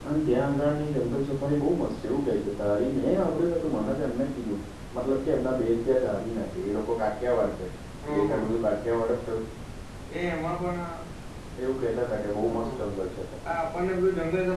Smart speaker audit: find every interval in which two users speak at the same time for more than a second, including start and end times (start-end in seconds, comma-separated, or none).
none